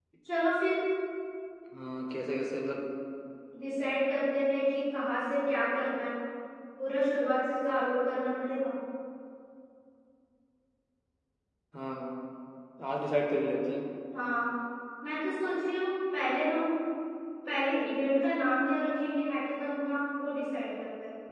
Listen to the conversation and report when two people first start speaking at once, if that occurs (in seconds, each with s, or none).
none